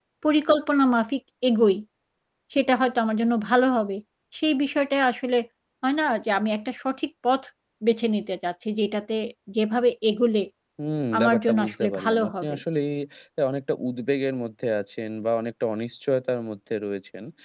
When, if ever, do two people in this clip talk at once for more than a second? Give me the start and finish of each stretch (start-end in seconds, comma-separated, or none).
11.2-12.6